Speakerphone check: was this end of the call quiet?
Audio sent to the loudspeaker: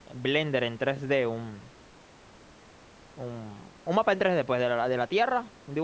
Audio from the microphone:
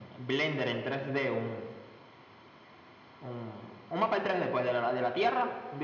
Yes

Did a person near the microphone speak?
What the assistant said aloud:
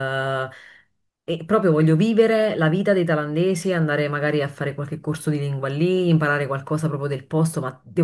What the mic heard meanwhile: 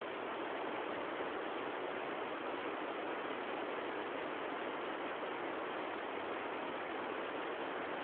No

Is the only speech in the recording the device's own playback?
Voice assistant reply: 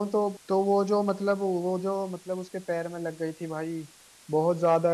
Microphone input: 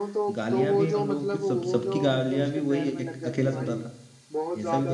No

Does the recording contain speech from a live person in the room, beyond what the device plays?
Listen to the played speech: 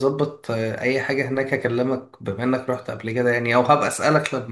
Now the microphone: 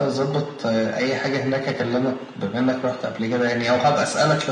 No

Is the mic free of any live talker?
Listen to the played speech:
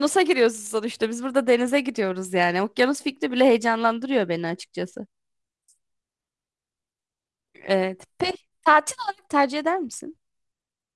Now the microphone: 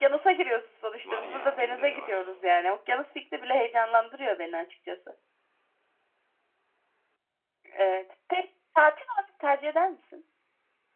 No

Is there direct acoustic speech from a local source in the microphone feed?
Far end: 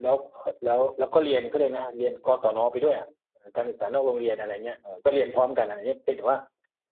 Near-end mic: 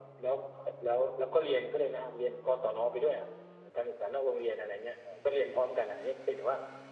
No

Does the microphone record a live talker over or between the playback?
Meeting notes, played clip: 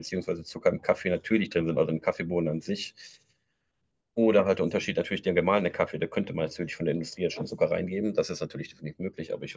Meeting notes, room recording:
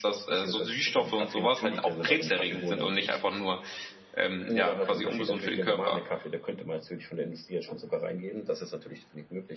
Yes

